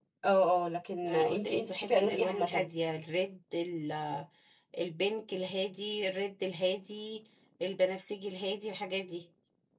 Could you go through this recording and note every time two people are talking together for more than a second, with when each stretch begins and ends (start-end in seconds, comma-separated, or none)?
1.0-2.7